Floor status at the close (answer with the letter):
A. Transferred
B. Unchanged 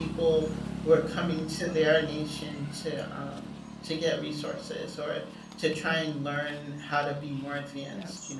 B